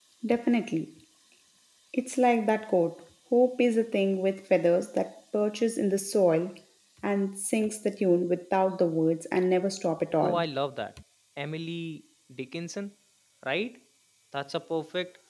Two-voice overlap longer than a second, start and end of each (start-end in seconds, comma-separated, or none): none